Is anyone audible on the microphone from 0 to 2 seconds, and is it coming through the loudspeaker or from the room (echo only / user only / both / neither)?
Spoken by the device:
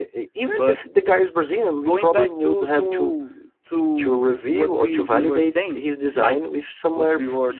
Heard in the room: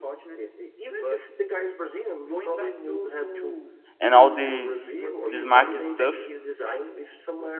echo only